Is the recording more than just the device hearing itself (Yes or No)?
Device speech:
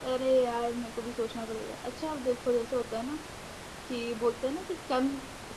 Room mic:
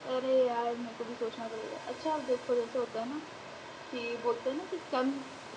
No